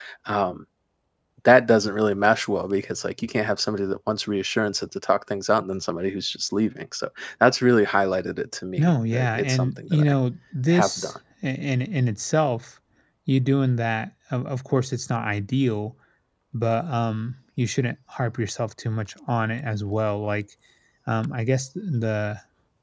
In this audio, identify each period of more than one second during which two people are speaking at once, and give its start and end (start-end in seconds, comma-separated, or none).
8.8-10.1